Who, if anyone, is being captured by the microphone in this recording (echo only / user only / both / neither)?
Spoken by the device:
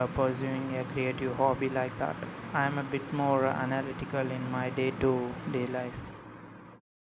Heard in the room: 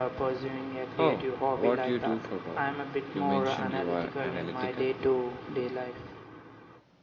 both